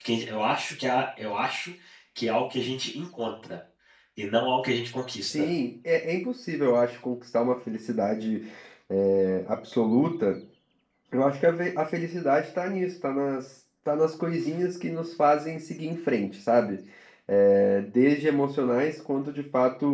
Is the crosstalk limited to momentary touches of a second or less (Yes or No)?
Yes